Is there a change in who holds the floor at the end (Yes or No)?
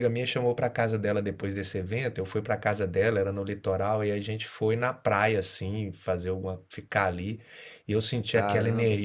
No